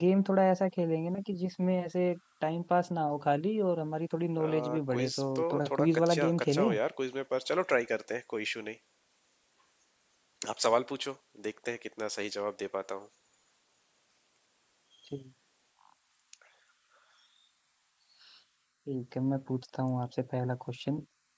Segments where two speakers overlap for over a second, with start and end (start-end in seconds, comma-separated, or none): 4.4-6.7